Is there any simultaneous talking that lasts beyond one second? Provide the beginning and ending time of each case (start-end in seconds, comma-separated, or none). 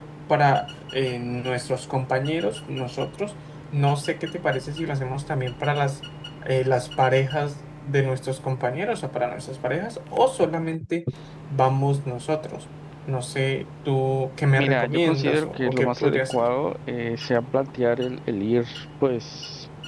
14.6-16.5